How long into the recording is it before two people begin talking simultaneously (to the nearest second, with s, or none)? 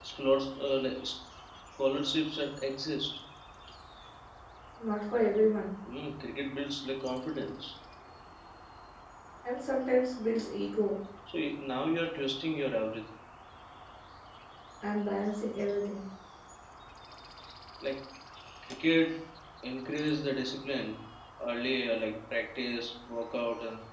none